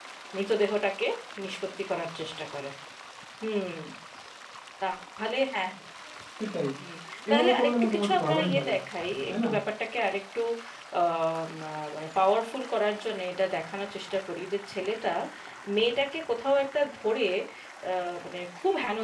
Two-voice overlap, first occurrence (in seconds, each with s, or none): 7.3 s